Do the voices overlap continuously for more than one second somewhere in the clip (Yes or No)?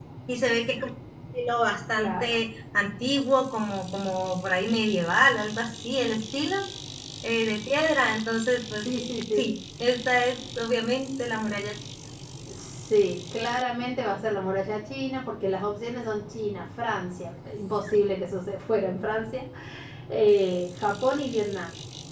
No